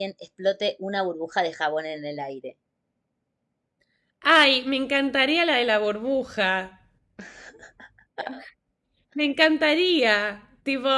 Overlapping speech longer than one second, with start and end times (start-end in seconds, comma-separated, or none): none